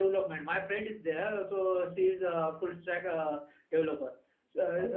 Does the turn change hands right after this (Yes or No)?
No